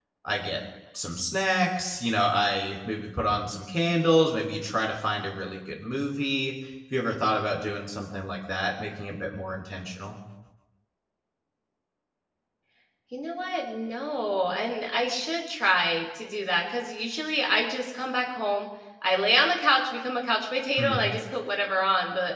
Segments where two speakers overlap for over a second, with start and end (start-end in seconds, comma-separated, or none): none